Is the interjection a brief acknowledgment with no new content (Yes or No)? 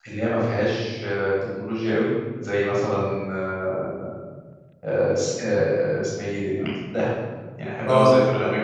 Yes